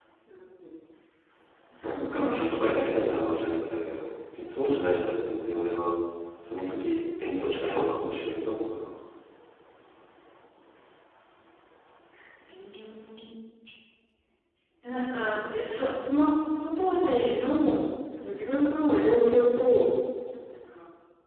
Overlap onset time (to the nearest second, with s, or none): 2 s